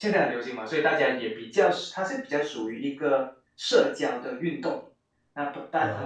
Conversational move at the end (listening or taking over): listening